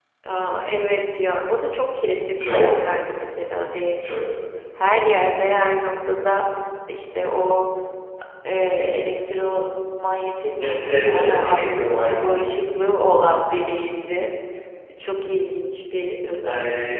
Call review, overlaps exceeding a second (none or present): present